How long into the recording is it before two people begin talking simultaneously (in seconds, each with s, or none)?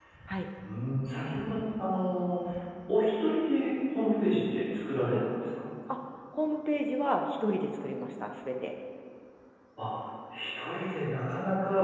none